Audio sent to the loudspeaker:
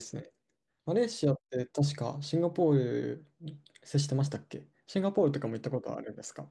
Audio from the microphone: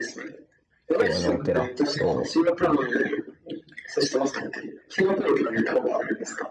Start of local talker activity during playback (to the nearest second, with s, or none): 1 s